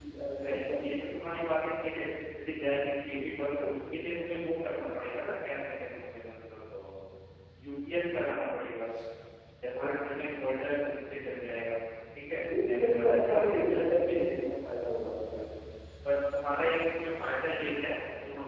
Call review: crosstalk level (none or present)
present